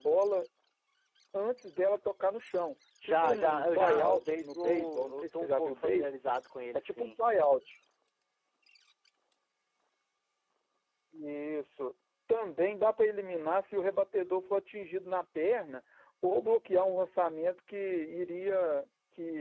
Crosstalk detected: Yes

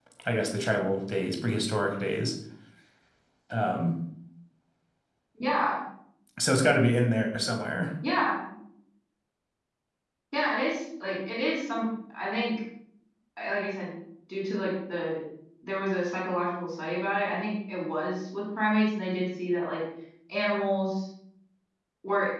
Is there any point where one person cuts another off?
No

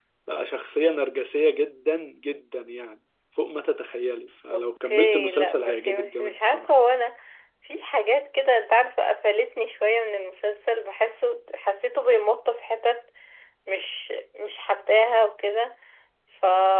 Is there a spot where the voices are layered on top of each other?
Yes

